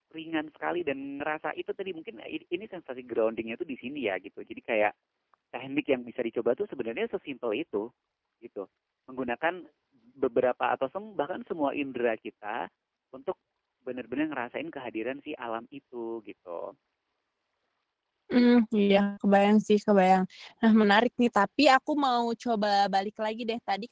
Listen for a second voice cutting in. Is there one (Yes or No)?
No